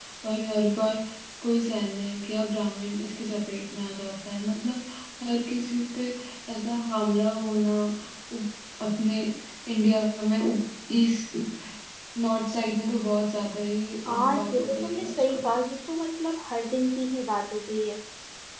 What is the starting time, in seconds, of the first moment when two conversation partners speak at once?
14 s

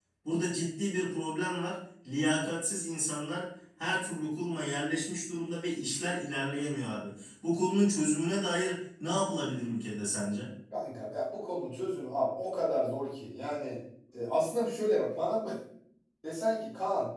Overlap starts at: none

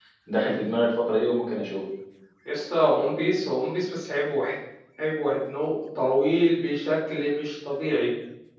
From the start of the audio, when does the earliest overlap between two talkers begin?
none

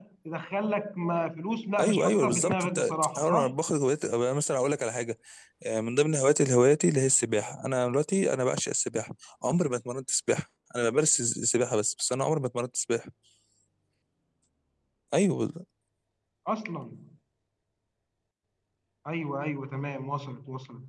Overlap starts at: 2 s

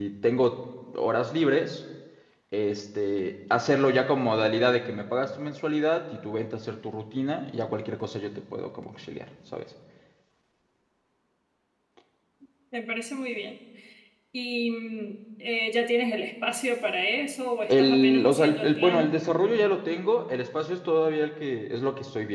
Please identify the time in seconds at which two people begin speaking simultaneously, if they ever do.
18 s

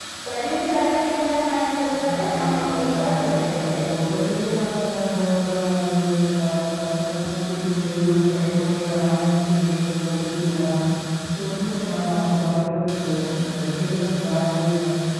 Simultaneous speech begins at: 2 s

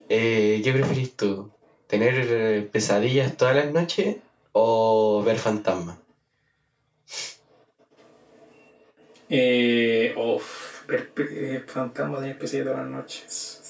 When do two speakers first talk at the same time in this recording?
none

